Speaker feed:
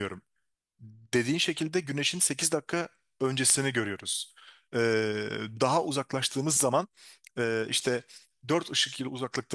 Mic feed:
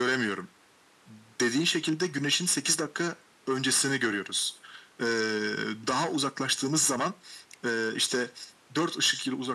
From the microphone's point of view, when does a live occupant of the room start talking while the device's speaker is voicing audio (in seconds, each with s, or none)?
none